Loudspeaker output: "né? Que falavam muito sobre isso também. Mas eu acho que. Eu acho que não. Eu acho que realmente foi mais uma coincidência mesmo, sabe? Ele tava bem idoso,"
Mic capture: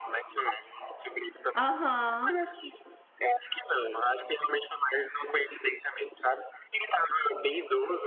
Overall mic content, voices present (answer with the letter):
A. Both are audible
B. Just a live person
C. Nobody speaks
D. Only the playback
A